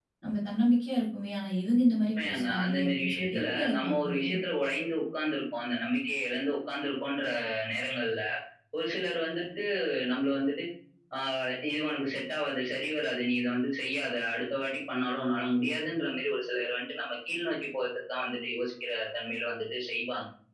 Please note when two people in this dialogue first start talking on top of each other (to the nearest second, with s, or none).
2 s